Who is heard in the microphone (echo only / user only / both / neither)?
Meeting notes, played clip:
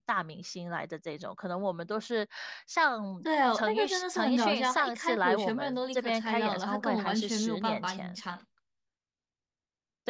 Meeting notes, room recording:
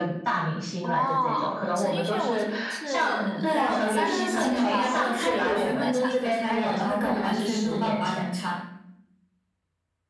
both